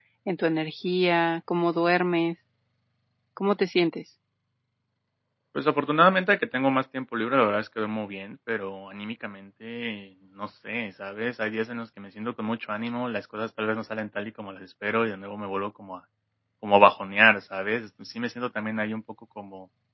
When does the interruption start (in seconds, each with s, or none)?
none